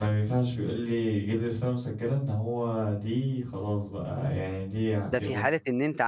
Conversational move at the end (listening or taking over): taking over